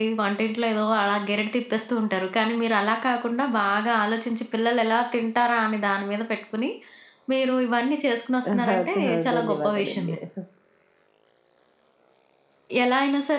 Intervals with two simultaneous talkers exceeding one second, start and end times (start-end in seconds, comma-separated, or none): 8.5-10.2